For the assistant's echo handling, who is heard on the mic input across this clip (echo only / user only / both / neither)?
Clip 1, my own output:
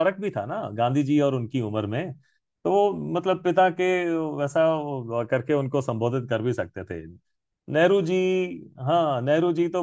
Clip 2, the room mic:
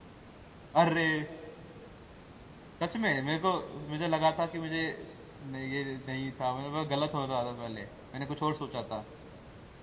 user only